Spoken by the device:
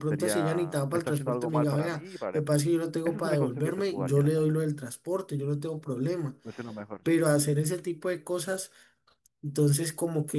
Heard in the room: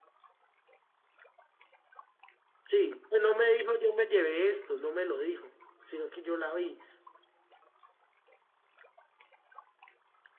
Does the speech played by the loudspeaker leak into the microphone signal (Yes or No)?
No